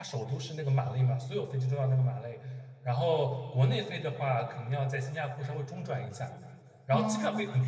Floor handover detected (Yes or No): No